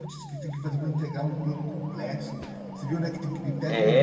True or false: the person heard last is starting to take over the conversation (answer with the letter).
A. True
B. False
A